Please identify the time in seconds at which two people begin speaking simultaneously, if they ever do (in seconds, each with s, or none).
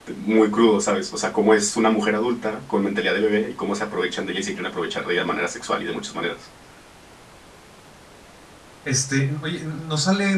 none